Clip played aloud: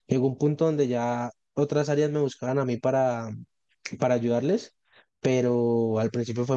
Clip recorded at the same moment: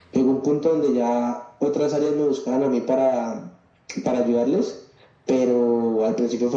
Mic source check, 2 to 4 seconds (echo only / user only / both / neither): echo only